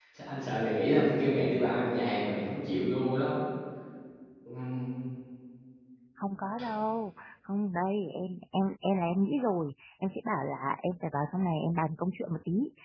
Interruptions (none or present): none